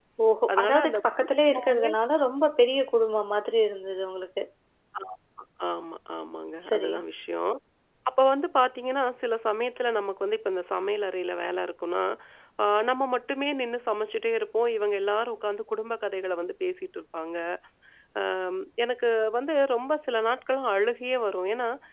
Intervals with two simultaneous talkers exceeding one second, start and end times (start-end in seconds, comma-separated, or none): 0.5-1.9